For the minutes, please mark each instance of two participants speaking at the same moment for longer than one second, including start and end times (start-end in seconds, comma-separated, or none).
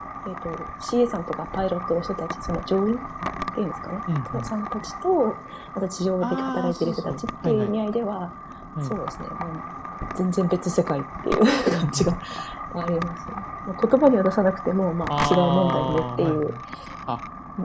6.2-7.7, 15.1-16.5